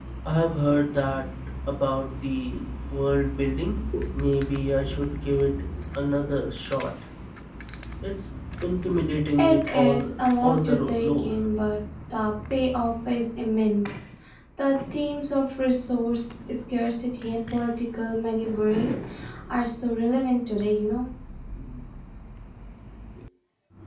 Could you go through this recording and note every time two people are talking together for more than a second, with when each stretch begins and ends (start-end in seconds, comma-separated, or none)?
9.4-11.3